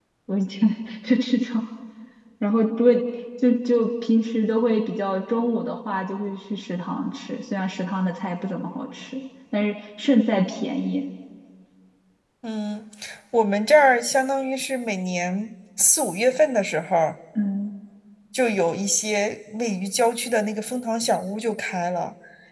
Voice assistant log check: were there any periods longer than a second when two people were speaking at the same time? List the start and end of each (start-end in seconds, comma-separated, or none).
none